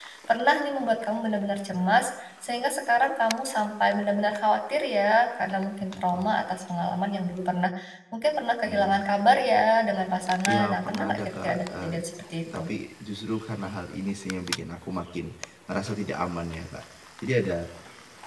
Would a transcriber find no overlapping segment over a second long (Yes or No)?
No